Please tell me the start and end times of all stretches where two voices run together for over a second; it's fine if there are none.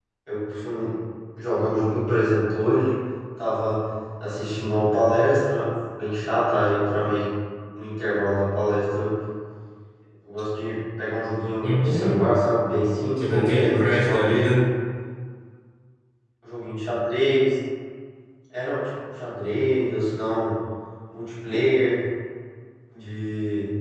13.2-14.7

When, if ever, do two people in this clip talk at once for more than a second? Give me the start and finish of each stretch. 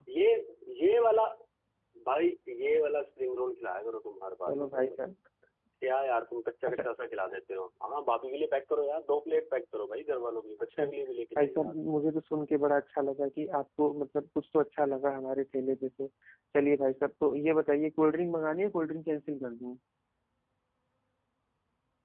none

